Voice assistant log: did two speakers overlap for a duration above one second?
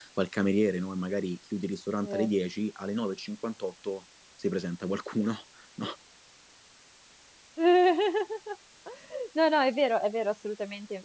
No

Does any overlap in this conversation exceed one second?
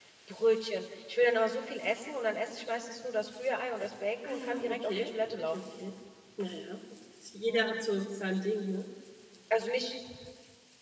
Yes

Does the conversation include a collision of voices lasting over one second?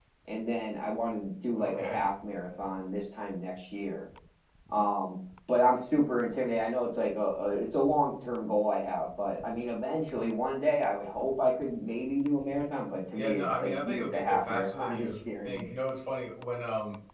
Yes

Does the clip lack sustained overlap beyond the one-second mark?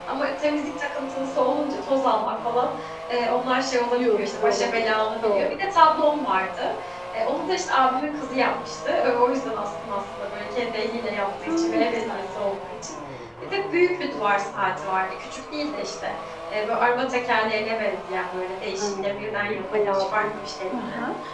No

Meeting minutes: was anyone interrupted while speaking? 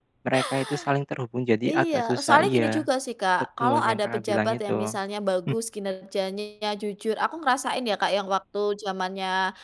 Yes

